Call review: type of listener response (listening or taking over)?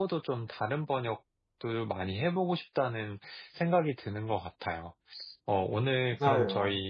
listening